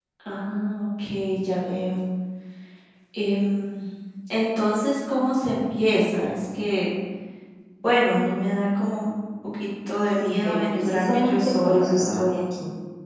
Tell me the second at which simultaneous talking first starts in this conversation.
10.2 s

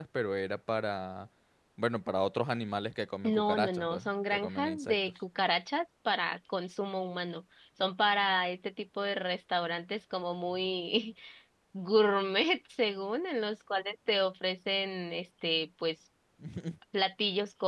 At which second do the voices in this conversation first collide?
3.2 s

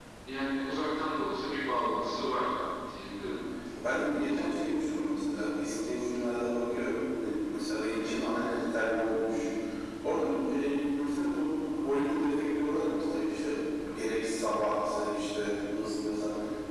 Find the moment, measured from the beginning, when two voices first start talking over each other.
none

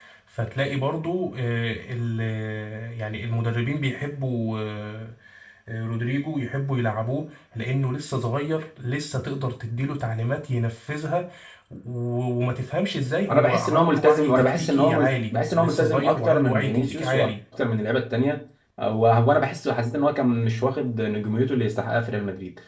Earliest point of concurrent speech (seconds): 13.3 s

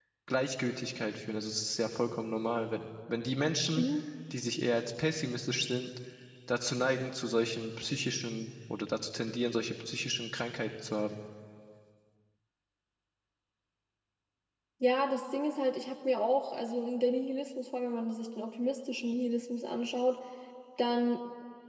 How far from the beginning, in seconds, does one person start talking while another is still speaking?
none

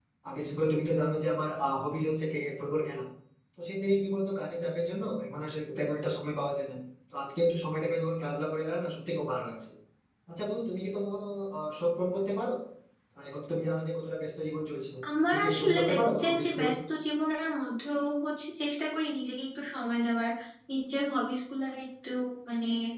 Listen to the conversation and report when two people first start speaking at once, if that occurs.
15.3 s

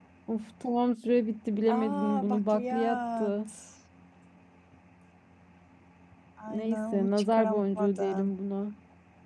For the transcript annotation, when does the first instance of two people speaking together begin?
1.8 s

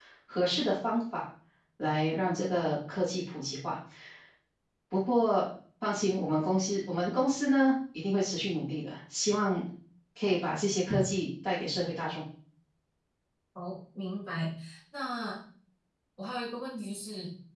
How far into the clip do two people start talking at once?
none

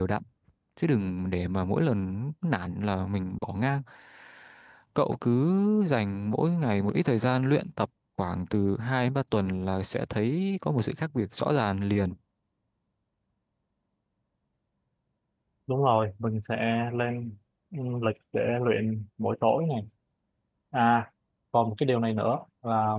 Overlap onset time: none

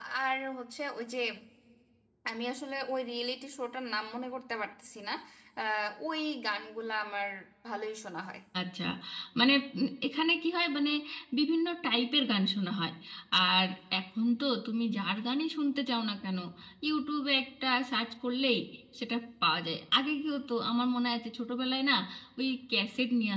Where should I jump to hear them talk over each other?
none

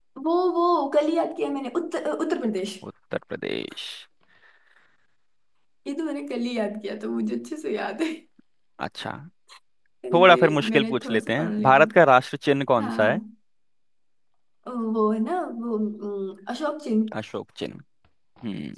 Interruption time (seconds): 10.1 s

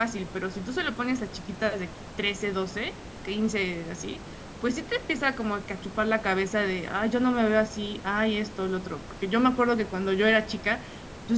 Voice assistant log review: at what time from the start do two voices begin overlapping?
none

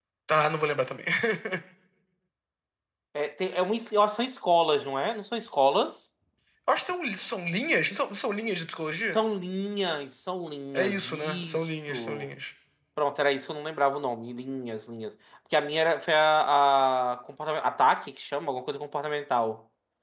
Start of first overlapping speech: 10.8 s

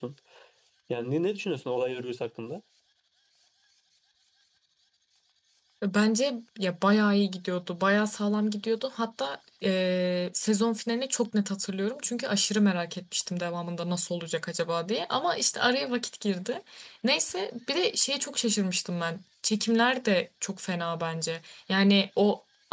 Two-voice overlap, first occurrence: none

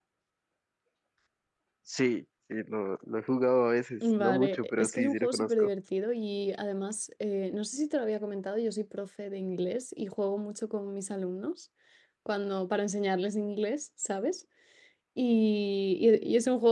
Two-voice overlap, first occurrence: 4.0 s

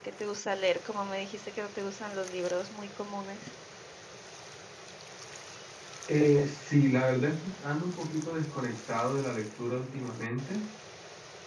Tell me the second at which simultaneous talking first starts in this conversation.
none

